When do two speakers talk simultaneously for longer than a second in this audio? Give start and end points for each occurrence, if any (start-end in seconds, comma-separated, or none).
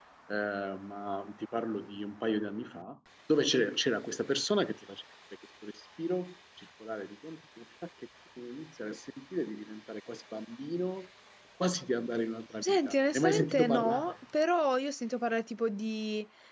12.6-14.1